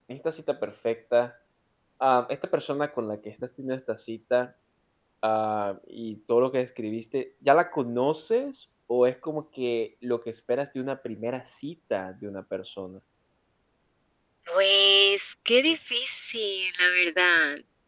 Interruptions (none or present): none